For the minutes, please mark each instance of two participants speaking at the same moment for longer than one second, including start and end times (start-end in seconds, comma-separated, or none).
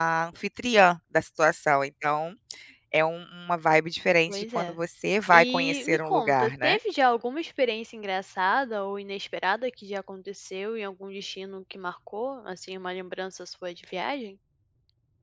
5.3-6.8